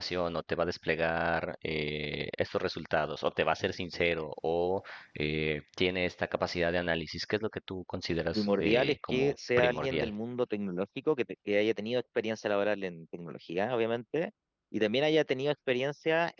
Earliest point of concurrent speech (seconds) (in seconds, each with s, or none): 8.3 s